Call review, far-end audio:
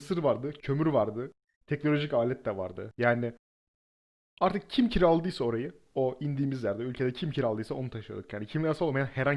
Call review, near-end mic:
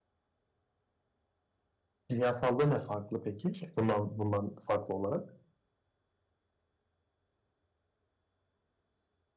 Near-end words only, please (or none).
Kimyasalda ne farklı peki? Bundan bundan farklı olarak.